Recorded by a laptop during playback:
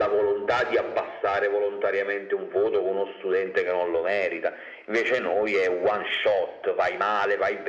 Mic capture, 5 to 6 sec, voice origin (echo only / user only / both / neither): echo only